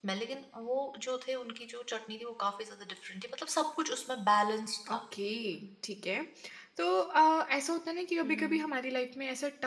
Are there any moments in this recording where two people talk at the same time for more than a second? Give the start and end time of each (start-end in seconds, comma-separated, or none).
none